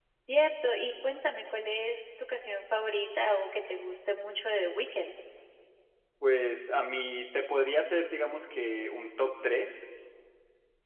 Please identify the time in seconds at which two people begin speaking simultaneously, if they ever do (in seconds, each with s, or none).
none